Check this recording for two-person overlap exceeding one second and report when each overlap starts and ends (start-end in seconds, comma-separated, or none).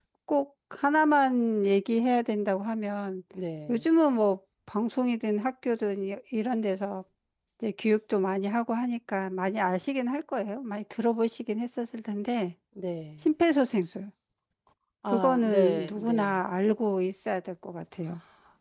15.1-16.4